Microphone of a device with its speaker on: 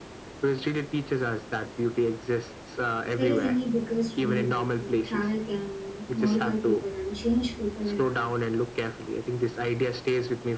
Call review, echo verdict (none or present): present